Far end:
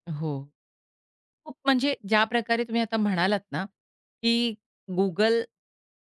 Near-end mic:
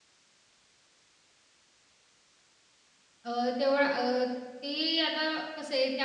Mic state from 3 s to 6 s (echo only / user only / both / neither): user only